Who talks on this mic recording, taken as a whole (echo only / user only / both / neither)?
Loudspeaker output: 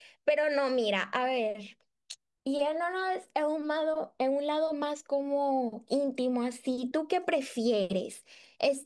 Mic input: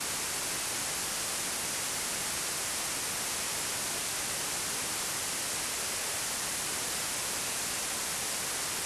neither